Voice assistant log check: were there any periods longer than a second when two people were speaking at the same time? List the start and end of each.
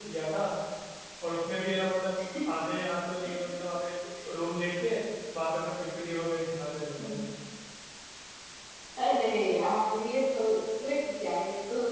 none

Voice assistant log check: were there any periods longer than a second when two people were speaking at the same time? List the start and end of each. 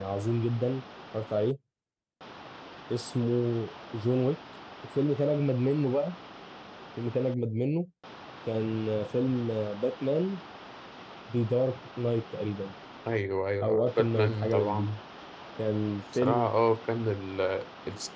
13.6-14.9

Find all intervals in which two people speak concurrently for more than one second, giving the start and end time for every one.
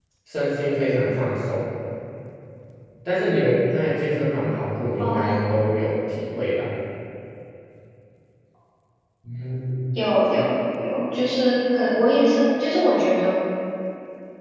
none

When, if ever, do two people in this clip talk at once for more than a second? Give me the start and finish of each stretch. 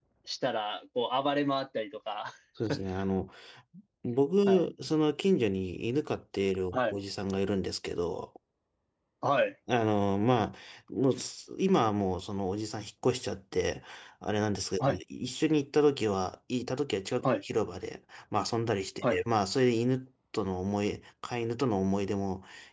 none

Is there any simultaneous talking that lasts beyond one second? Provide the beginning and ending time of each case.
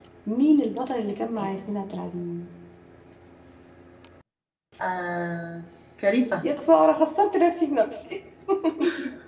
none

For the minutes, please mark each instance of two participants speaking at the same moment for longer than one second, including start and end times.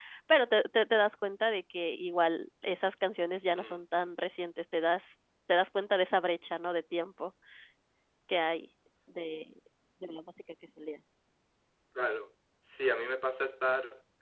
none

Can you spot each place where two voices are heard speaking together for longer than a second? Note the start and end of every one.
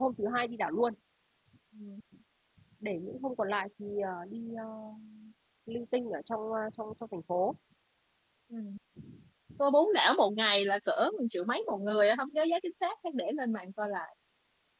none

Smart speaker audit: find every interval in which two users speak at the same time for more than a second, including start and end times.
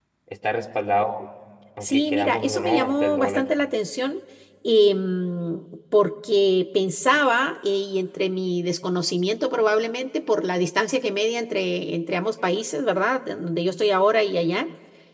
1.8-3.4

